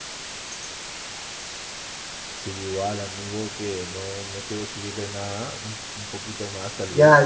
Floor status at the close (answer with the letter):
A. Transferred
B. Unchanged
A